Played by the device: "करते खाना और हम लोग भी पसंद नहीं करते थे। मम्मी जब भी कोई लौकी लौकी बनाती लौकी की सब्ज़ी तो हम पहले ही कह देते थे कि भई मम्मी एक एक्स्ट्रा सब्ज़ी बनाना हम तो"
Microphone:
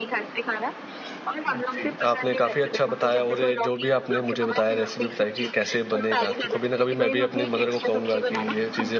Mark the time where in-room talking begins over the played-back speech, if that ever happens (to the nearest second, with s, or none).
1 s